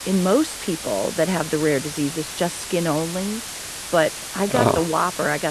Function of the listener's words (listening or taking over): listening